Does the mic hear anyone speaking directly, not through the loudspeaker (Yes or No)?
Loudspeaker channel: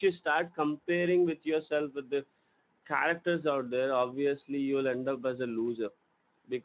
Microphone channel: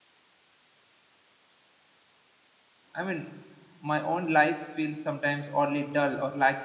Yes